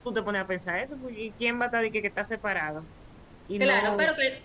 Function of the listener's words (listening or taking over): taking over